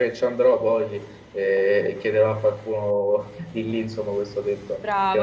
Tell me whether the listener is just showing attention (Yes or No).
No